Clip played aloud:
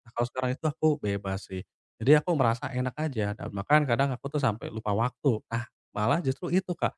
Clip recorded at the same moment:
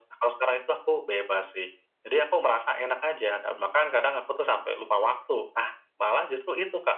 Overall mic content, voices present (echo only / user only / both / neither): echo only